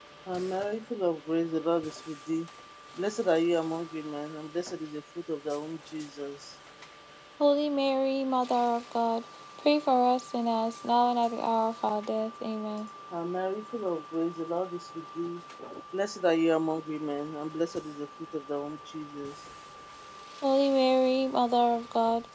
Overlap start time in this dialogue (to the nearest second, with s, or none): none